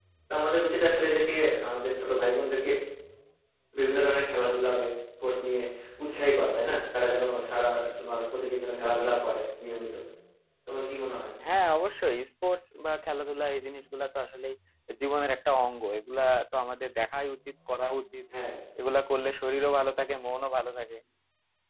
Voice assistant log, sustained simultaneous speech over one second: none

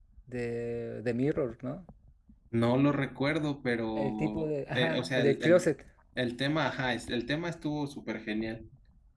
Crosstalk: present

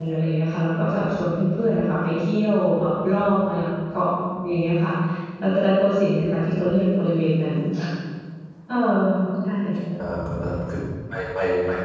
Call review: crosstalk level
none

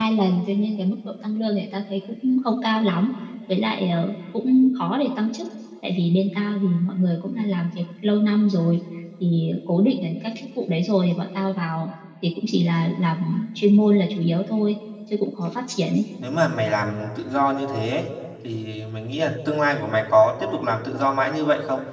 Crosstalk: none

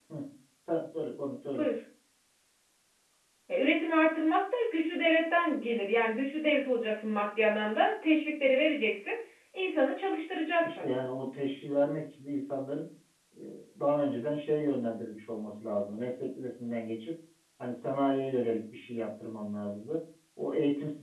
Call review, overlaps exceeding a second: none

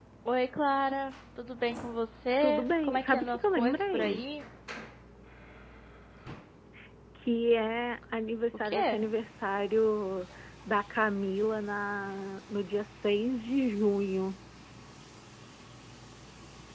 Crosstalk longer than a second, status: present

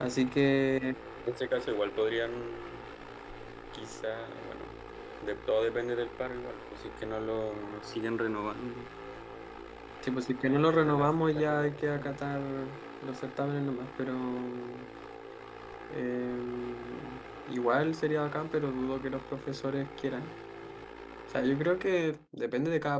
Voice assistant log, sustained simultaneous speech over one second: present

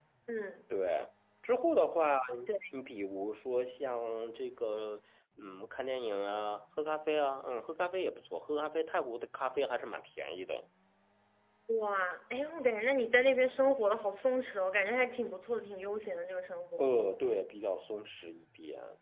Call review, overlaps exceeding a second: none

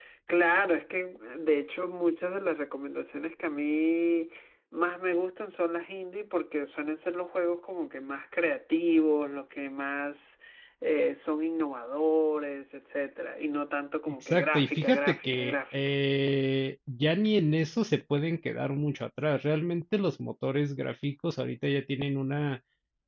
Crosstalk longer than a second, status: present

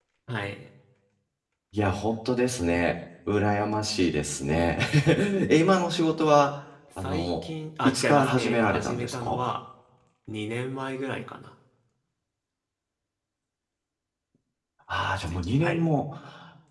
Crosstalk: present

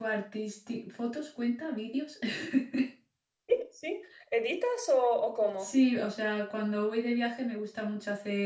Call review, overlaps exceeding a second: none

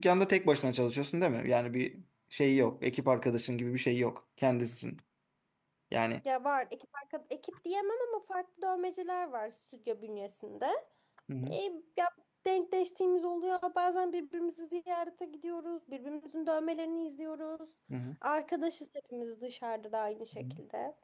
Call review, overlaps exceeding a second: none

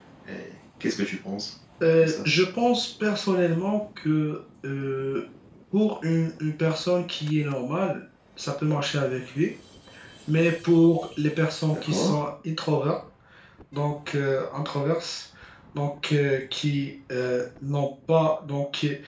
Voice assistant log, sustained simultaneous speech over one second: none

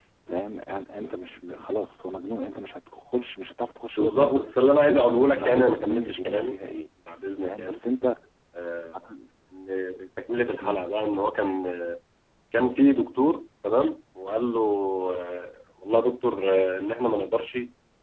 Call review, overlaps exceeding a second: present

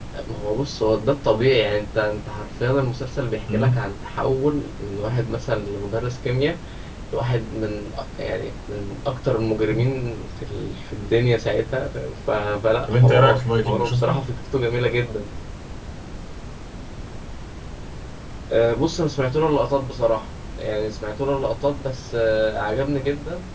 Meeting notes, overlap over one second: present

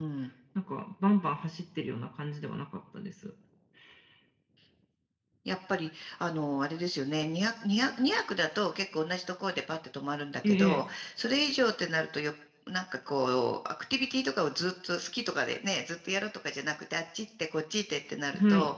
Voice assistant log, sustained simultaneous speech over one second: none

